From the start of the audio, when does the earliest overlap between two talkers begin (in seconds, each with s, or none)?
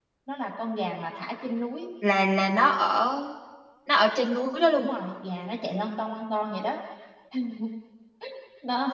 none